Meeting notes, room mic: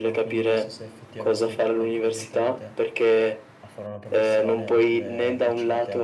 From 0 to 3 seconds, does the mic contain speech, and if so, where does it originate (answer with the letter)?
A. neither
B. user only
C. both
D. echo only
C